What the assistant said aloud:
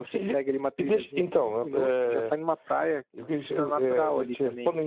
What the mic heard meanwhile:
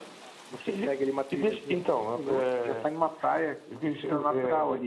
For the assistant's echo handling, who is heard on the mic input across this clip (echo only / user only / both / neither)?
echo only